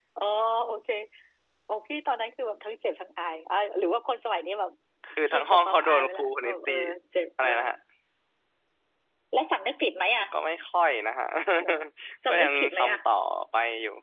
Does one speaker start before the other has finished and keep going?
Yes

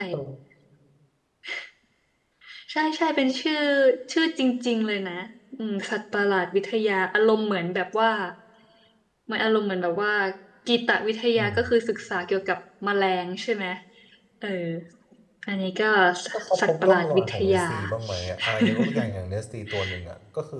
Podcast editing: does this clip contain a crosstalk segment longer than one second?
Yes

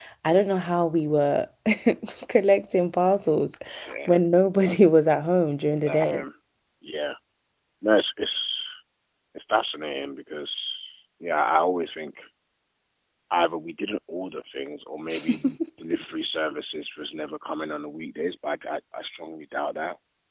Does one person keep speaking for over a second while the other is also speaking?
No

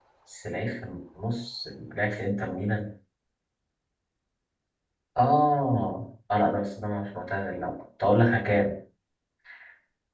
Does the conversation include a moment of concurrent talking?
No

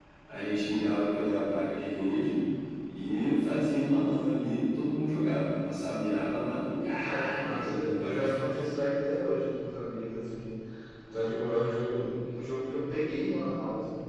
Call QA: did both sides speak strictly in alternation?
No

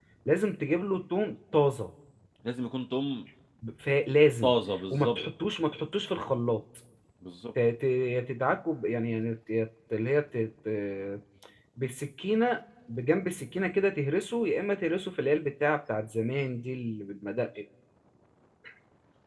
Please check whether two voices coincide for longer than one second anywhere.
No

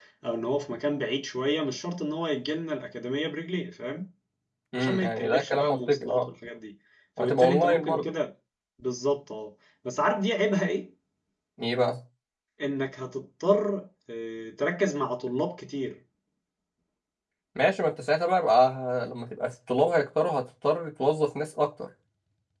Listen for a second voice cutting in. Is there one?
Yes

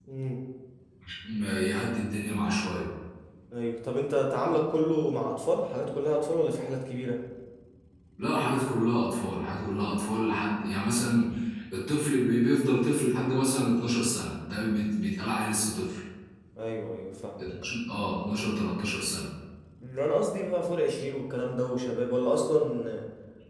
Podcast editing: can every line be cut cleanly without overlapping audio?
Yes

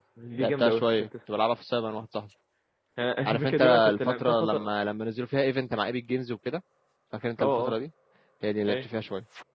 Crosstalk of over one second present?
Yes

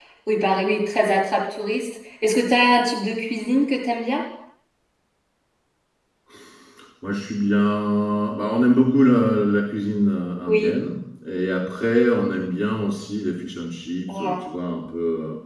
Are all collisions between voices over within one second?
Yes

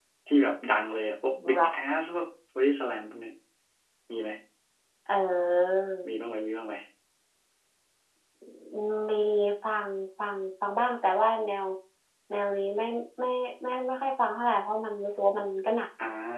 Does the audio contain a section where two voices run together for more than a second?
No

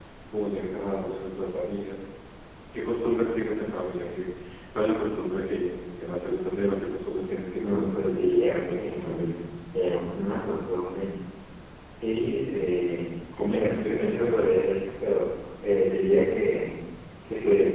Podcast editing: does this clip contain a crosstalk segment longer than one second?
Yes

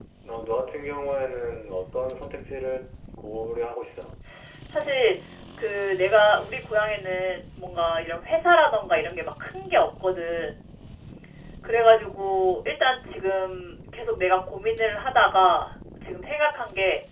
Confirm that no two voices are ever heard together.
Yes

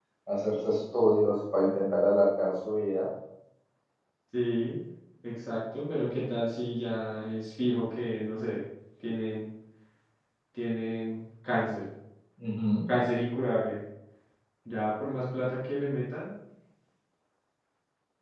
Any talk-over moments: No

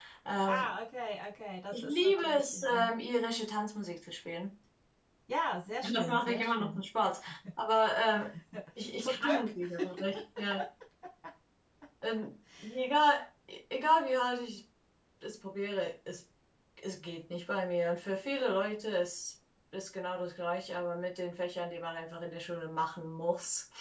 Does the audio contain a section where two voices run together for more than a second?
Yes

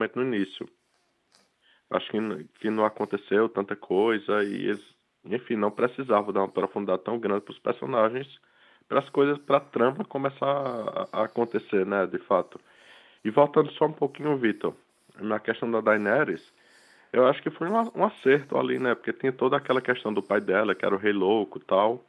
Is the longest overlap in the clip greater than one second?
No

